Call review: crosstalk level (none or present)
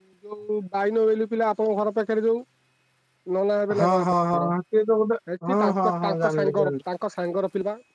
present